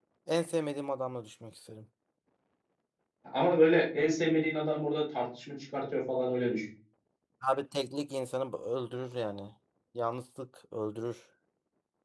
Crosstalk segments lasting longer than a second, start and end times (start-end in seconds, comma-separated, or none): none